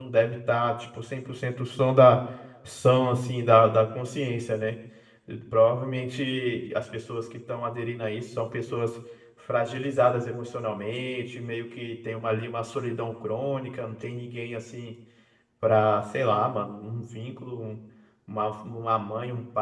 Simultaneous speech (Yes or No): No